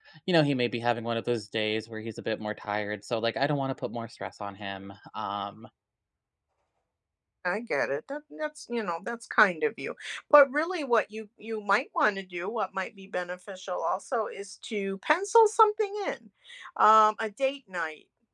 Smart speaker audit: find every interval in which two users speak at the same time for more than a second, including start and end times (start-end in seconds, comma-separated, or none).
none